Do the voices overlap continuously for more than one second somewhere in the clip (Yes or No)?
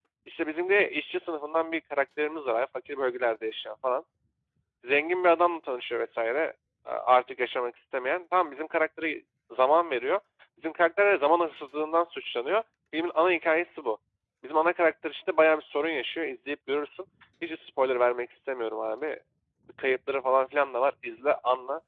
No